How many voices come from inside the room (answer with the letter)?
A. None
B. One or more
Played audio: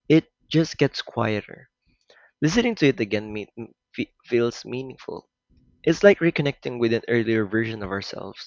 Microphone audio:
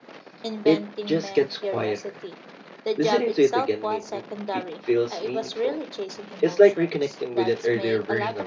B